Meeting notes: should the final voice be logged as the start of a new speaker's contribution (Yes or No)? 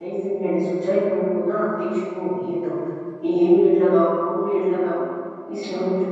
Yes